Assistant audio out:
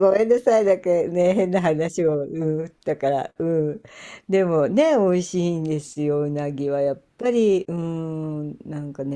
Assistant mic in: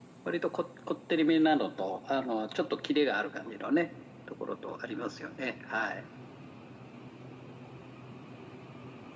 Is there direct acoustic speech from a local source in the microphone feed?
Yes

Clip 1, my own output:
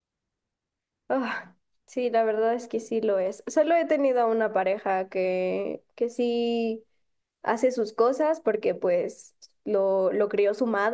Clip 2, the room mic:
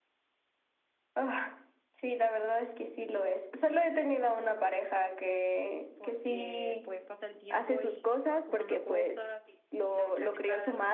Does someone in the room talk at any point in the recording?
Yes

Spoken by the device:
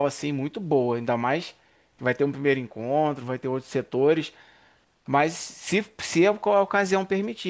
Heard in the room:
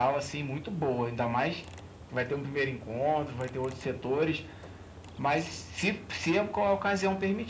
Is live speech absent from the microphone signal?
Yes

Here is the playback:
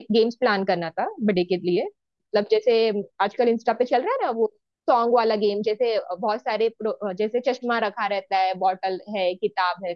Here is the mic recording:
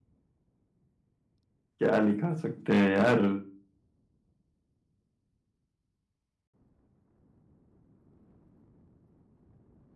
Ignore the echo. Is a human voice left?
Yes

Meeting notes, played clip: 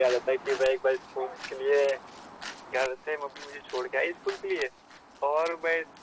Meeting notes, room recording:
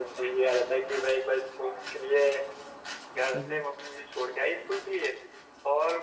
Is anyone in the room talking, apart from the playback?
Yes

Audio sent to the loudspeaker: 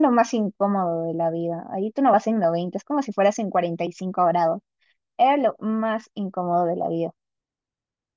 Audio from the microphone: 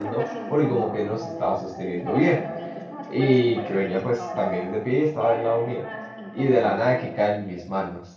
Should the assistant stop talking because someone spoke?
Yes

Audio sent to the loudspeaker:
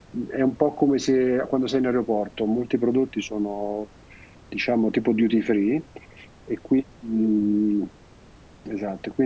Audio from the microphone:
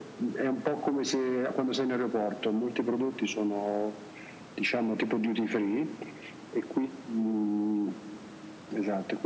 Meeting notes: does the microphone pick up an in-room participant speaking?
No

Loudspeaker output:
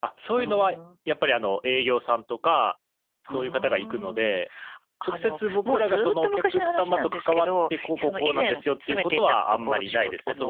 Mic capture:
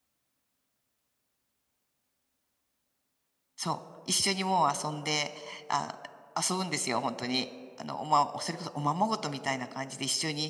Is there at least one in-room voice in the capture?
Yes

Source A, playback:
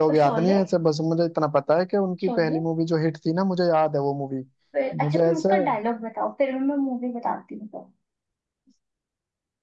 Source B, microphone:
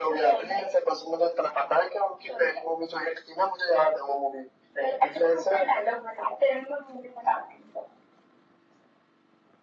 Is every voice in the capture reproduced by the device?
Yes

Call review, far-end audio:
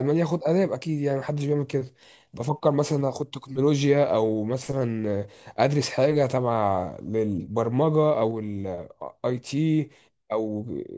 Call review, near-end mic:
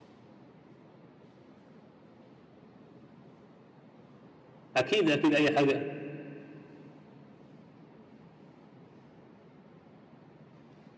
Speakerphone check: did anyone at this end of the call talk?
Yes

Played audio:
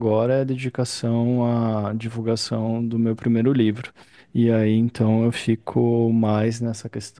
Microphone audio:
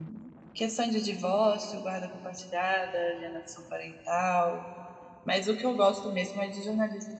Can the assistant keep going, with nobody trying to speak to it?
No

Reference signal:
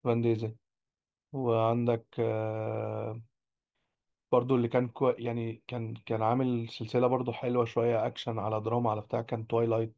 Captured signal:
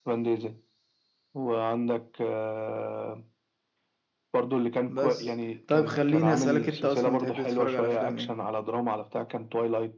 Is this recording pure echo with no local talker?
No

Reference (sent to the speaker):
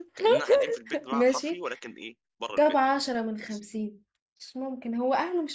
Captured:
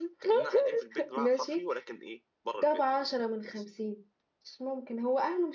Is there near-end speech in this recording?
No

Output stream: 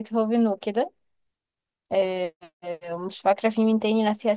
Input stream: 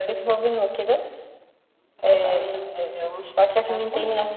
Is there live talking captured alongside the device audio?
Yes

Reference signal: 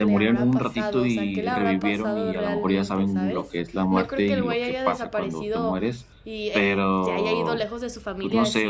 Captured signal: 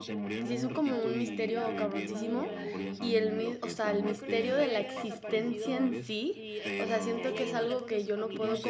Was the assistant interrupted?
Yes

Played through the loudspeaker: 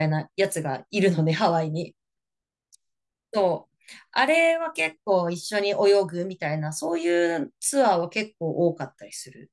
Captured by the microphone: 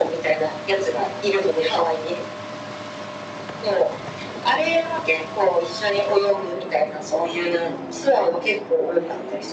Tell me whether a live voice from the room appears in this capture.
No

